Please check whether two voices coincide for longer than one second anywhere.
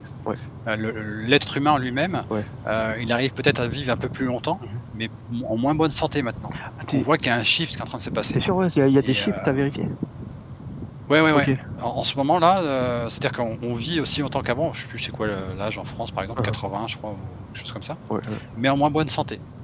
No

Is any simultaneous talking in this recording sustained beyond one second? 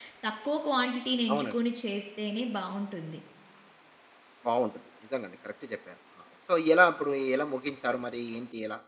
No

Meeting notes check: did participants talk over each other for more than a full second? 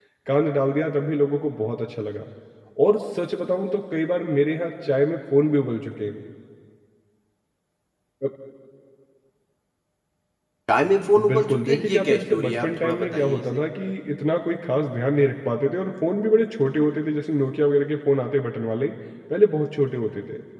Yes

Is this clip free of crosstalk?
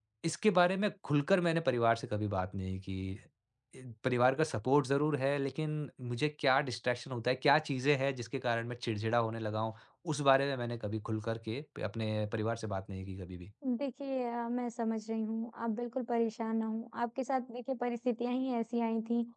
Yes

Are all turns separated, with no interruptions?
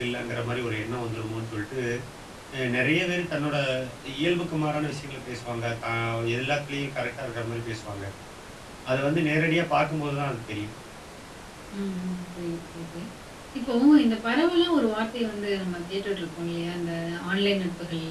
Yes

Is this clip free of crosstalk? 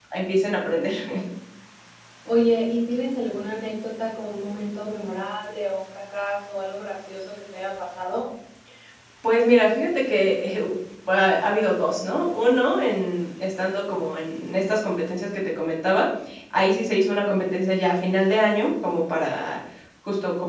Yes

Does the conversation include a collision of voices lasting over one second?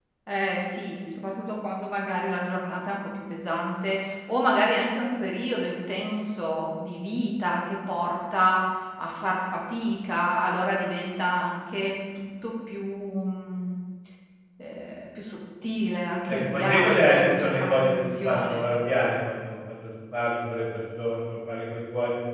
Yes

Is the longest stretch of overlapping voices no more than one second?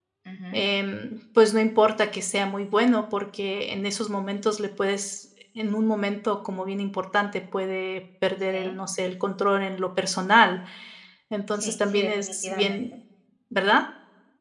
No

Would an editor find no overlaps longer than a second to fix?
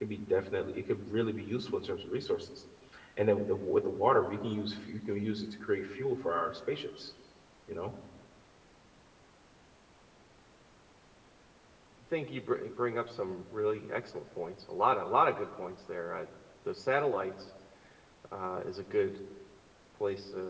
Yes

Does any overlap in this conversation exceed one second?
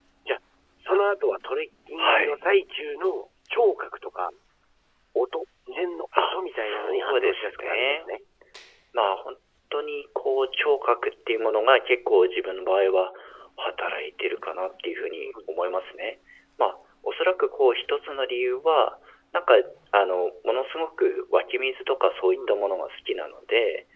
Yes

